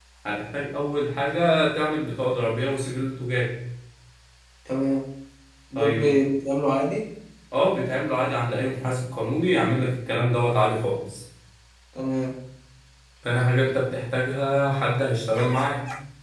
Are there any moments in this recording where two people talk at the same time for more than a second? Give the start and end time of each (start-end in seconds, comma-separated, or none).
none